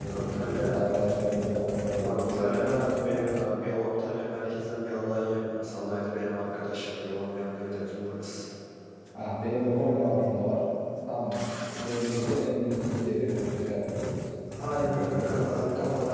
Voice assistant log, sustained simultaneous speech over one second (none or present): present